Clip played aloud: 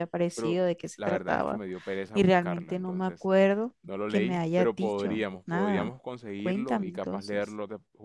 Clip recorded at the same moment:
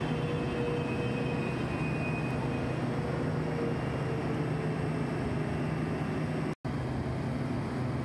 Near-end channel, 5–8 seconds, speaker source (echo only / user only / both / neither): neither